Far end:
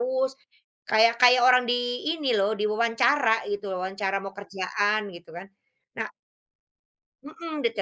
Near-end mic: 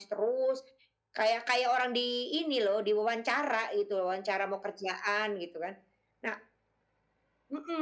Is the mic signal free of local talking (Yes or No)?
Yes